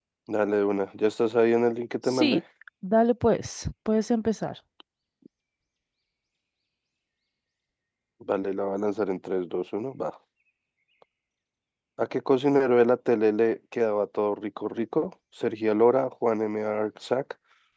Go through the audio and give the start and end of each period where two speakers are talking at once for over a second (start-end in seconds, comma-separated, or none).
none